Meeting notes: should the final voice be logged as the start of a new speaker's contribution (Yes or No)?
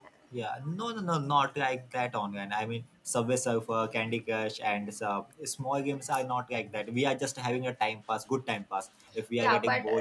Yes